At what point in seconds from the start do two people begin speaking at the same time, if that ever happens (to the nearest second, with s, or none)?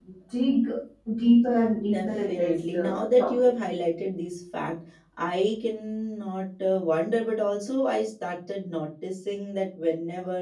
2 s